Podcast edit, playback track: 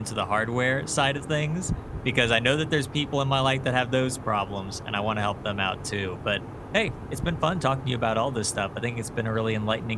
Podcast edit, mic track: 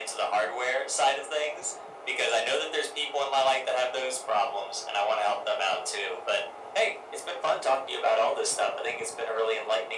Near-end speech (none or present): none